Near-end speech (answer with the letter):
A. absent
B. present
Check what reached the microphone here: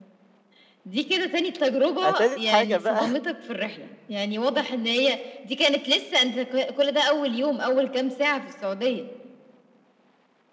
B